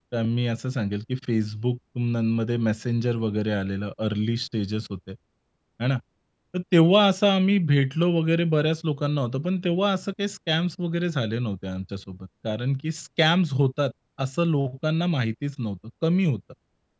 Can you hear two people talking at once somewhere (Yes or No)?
No